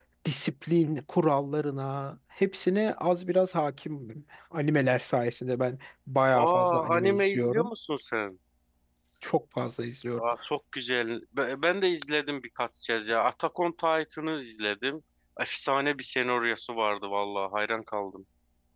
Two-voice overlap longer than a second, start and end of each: 6.4-7.7

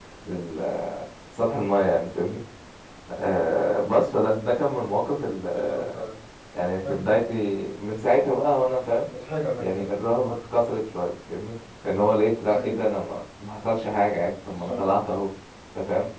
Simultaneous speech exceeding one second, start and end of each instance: none

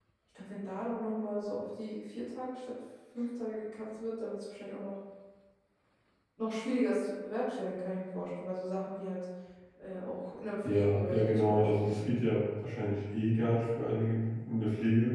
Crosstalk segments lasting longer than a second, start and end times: 10.6-12.0

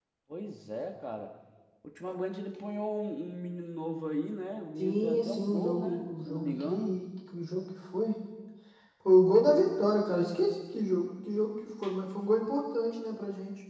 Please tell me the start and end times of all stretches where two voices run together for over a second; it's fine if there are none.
4.8-7.0

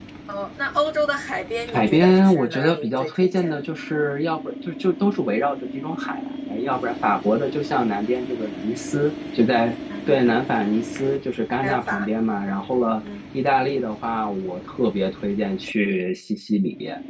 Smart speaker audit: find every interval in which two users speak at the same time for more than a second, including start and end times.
1.7-3.7

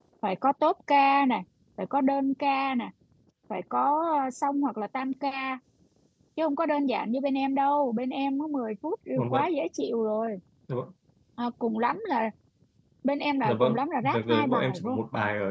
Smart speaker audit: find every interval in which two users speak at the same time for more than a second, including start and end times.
13.4-15.0

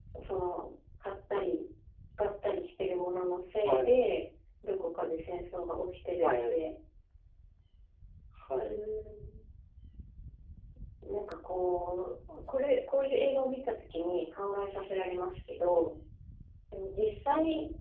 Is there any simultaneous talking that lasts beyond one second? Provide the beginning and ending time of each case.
none

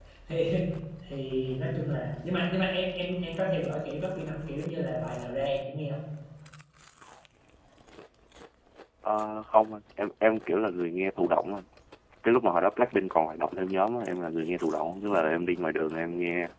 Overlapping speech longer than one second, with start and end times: none

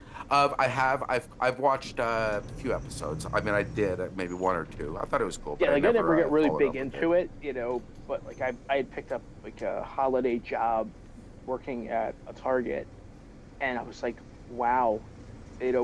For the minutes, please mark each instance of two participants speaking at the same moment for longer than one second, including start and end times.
5.6-7.0

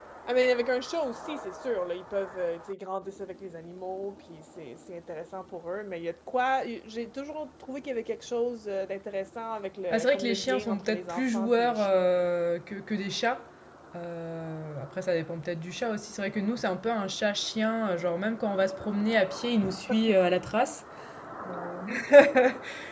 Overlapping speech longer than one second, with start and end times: 9.9-12.0

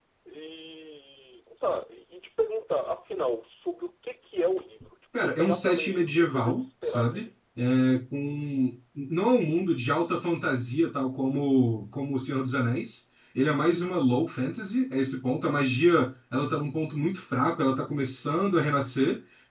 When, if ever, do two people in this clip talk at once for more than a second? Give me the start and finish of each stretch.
5.2-7.3

